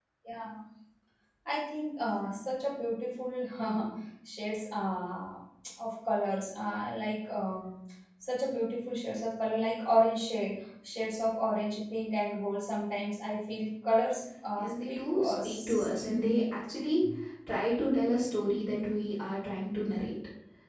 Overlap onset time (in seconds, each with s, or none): 14.6 s